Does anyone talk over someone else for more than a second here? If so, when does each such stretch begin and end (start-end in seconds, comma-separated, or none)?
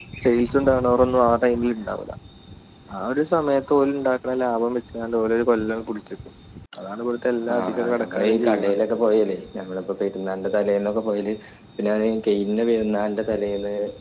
7.5-8.8